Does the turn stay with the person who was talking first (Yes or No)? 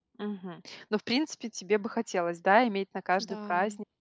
Yes